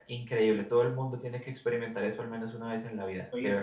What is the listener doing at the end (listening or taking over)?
taking over